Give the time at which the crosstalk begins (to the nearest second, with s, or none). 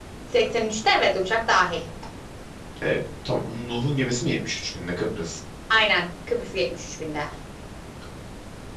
none